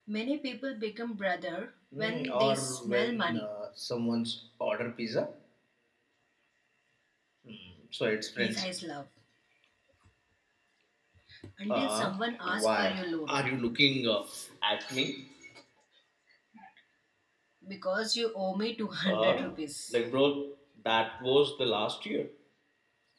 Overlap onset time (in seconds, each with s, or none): 1.9 s